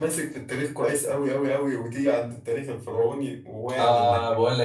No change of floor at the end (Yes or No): No